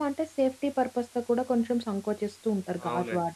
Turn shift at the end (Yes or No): Yes